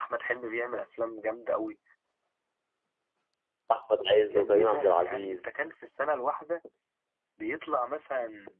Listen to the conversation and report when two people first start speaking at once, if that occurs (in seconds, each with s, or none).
4.3 s